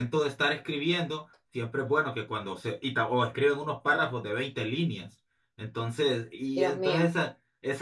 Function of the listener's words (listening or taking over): listening